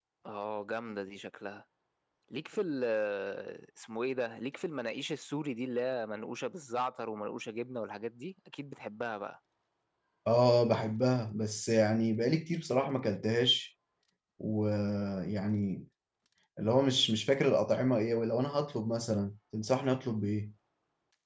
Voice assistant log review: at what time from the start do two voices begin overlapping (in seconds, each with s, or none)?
none